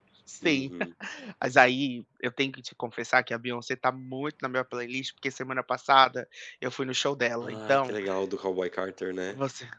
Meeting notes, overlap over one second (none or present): none